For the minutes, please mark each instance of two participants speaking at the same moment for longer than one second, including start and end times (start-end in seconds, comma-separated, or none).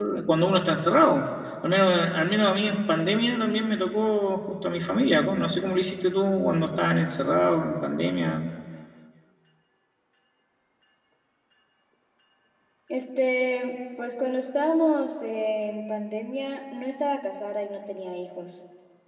none